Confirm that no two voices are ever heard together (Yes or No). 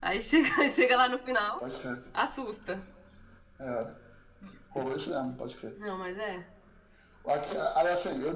Yes